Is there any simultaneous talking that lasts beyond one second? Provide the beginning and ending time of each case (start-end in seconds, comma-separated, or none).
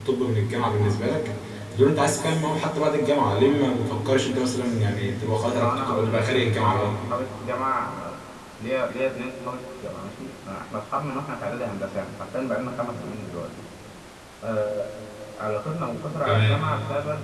5.6-7.0